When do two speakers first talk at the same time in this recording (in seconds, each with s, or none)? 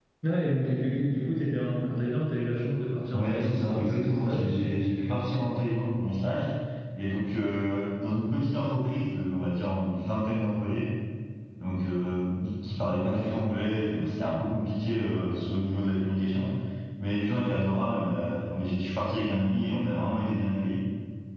3.1 s